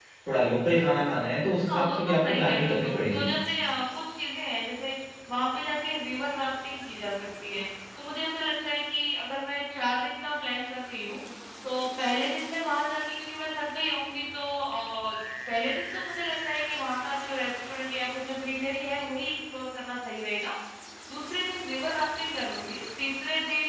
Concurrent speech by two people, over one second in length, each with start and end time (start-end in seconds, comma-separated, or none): 1.7-3.3